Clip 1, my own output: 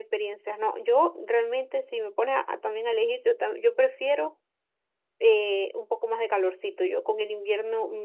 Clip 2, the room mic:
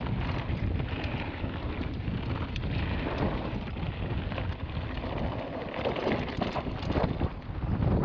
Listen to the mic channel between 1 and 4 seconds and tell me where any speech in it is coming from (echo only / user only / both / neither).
neither